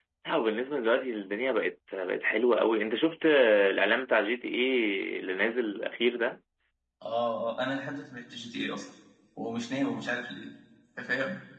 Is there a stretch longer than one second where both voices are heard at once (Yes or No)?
No